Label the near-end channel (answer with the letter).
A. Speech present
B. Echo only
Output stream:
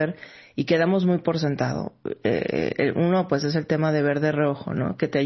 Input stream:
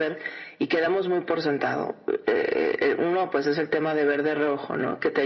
B